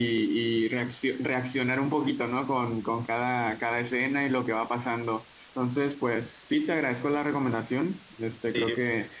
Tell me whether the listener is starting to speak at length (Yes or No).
No